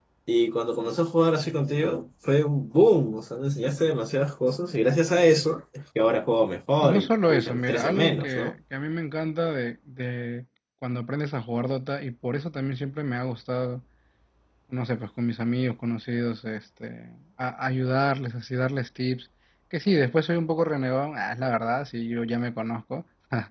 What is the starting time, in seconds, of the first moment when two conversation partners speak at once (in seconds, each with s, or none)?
6.8 s